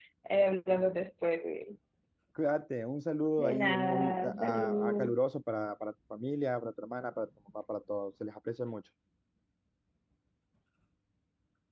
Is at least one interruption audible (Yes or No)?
Yes